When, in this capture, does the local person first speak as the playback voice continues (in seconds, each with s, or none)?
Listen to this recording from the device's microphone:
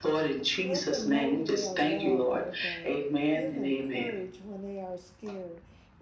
0.6 s